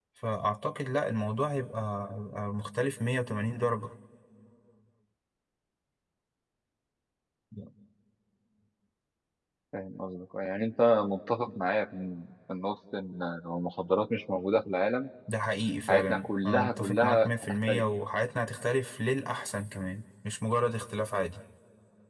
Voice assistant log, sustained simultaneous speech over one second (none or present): present